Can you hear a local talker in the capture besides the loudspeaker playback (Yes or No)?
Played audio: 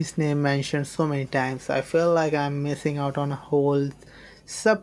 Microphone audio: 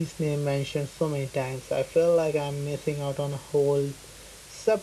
No